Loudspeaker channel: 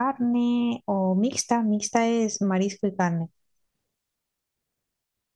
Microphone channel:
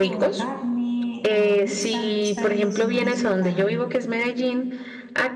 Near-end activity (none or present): present